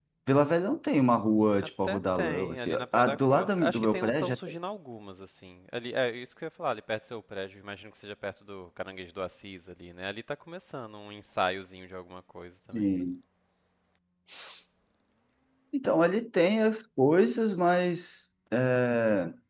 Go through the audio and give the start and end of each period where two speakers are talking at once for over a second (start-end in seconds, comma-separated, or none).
1.6-4.4